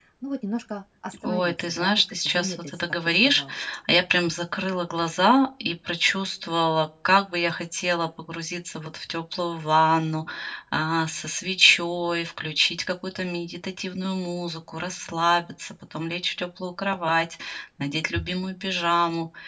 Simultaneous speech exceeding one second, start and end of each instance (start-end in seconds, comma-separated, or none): 1.2-3.4